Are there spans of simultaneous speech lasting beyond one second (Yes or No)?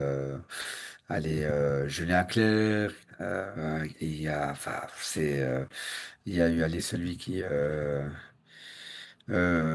No